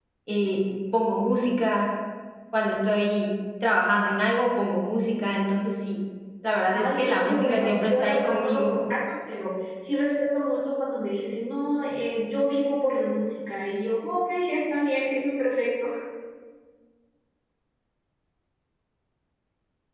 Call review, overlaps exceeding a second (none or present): present